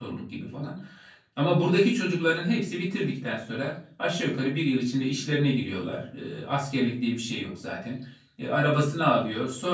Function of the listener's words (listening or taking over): listening